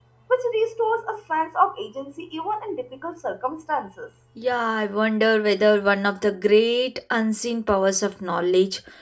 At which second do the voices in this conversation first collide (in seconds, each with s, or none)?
none